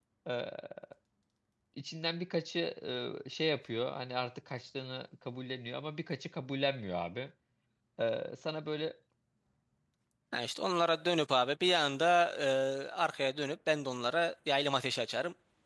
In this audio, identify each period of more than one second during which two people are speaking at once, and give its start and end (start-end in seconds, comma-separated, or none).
none